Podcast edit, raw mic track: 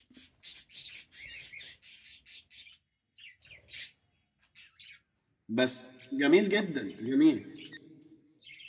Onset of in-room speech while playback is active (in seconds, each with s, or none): 5.5 s